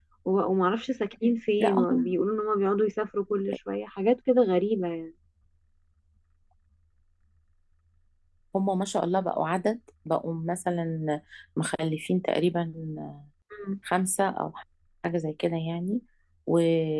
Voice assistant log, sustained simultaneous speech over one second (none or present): none